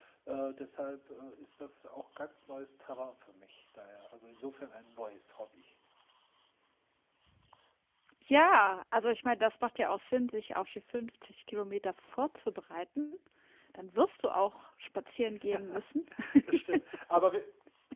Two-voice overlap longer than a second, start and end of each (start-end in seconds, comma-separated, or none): none